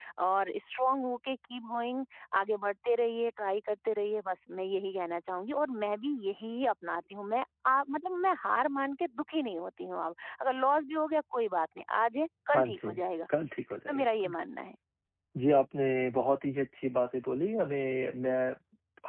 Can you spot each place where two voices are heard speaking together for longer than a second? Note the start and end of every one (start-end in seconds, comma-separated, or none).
none